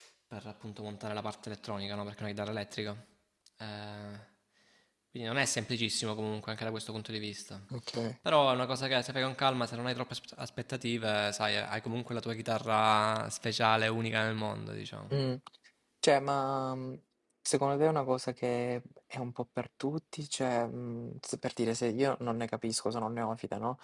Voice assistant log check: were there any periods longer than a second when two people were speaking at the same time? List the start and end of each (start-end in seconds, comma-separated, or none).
none